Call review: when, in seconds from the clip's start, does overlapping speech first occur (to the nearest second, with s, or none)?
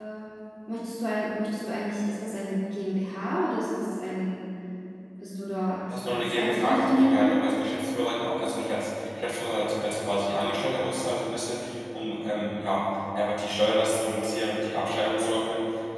6 s